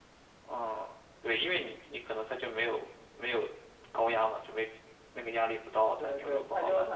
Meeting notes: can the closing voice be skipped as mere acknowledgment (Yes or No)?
No